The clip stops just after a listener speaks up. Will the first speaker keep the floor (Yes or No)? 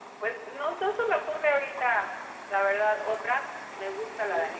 Yes